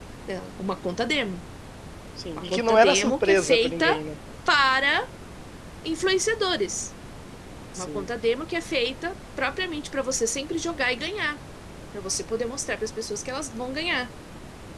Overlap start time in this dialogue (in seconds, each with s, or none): 2.3 s